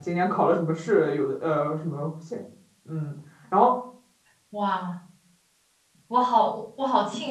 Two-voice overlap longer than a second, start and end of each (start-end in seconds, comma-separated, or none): none